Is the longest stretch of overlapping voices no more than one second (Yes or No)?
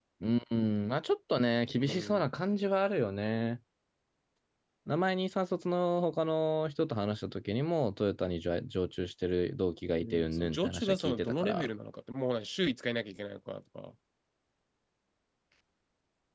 No